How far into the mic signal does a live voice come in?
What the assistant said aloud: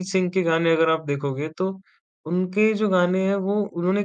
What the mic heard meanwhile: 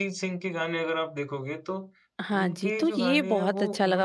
2 s

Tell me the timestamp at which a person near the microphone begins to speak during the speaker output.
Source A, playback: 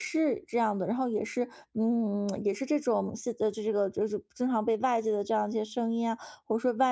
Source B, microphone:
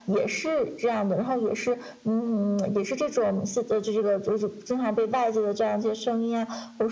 none

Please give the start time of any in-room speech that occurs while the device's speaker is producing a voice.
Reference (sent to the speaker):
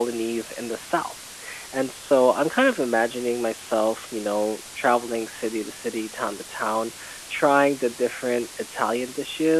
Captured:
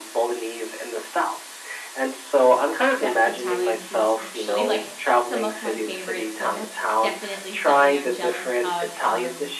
3 s

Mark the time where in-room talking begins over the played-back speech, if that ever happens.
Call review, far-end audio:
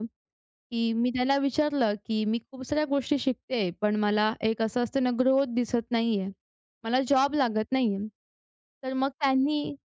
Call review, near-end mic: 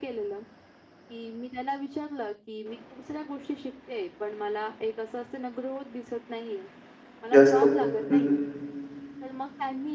7 s

